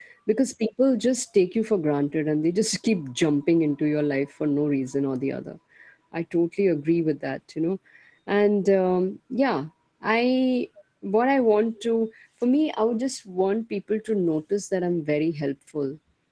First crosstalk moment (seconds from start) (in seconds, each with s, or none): none